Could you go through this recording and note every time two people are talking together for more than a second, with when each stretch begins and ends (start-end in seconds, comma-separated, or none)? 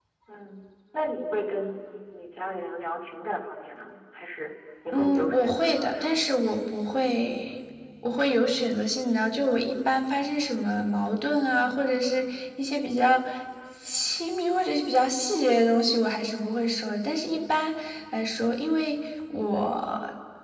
4.9-6.3